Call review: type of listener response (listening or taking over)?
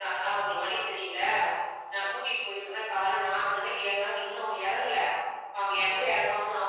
listening